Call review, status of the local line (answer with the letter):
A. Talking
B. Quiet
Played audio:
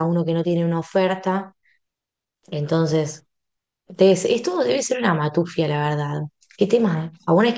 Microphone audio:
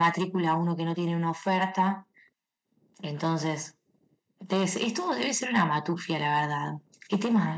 B